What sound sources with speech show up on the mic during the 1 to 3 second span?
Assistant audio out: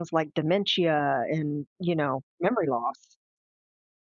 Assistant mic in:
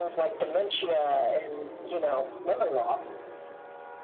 echo only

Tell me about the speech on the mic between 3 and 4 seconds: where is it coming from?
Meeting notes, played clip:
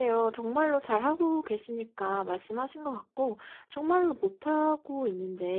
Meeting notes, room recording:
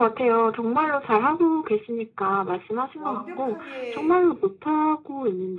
both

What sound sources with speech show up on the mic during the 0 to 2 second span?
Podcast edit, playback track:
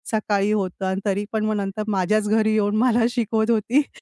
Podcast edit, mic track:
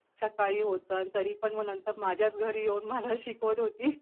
echo only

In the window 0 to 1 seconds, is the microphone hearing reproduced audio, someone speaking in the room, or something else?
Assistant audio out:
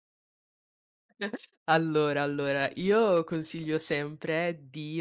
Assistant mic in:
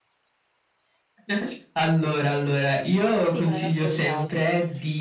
neither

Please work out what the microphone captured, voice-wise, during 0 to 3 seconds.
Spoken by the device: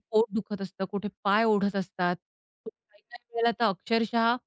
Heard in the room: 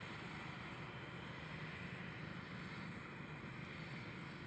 neither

